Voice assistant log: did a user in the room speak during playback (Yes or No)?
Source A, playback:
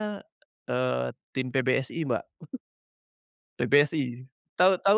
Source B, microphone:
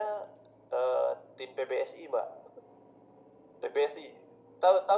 No